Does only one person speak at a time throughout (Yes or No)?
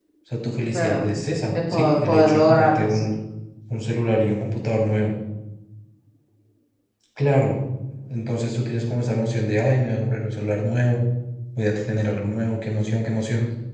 No